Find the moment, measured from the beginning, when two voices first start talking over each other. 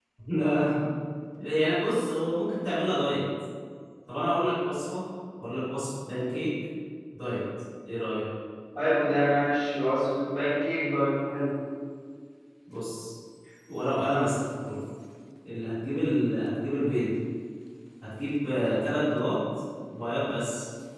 none

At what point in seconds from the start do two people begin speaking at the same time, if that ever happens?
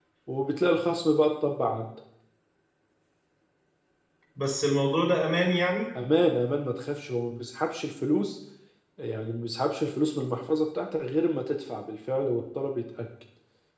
none

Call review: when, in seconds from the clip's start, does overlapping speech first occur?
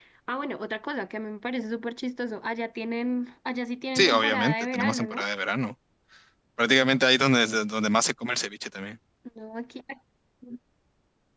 4.0 s

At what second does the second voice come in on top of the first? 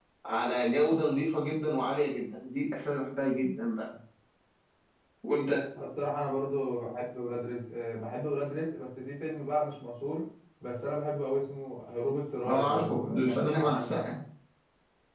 12.5 s

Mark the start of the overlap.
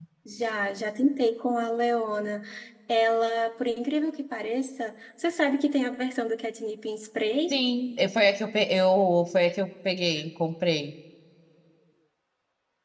none

